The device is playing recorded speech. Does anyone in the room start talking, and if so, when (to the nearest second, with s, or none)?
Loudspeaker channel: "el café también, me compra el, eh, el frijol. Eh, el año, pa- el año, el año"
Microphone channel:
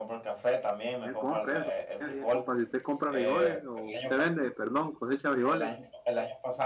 1 s